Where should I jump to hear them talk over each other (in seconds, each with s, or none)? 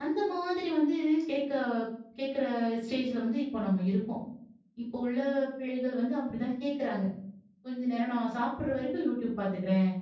none